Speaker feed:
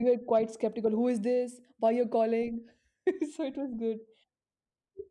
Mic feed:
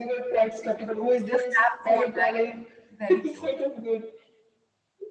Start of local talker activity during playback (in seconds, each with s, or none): 1.3 s